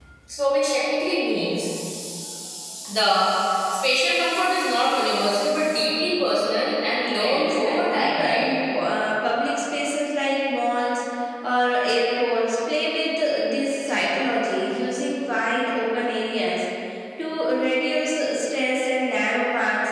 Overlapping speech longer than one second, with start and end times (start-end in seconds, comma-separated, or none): 7.1-8.4